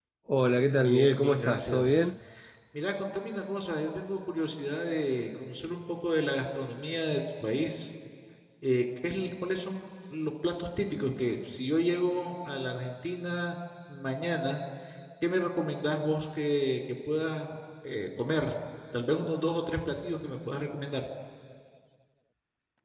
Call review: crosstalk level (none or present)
present